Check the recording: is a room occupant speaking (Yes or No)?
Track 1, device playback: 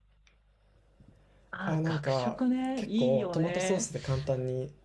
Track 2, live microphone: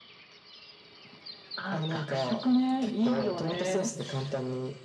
No